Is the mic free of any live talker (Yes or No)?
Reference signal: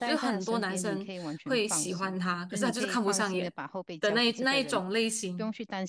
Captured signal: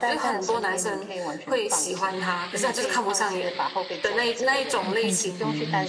No